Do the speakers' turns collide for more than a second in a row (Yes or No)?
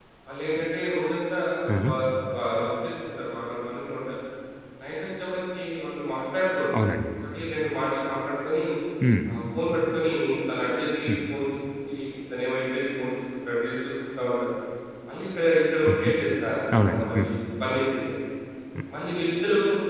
No